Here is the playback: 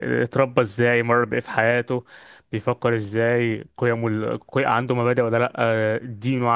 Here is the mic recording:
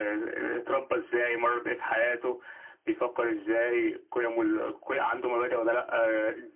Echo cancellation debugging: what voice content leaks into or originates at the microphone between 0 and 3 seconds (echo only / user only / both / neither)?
echo only